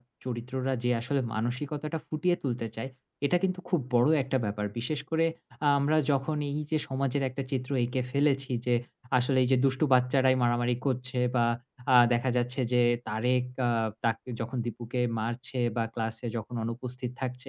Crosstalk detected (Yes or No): No